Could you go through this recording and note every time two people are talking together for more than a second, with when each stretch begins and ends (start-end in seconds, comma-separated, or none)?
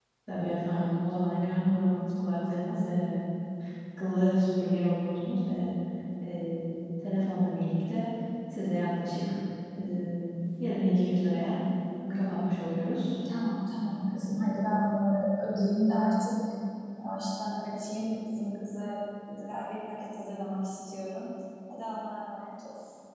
none